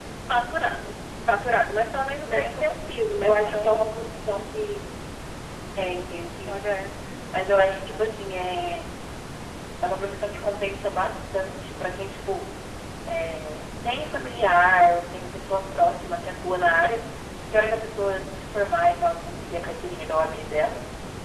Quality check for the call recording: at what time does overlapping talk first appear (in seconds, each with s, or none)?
2.2 s